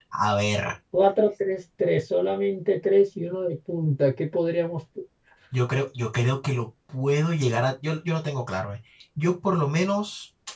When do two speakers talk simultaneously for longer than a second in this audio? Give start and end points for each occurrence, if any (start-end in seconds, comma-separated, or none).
none